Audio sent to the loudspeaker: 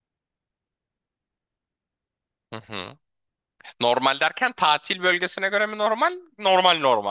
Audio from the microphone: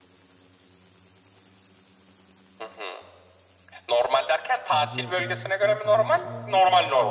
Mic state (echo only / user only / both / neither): both